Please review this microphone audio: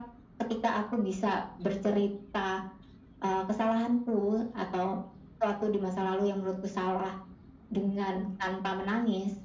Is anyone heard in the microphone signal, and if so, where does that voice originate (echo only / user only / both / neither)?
echo only